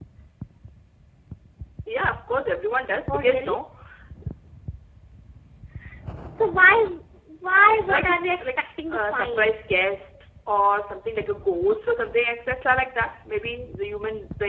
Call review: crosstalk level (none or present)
present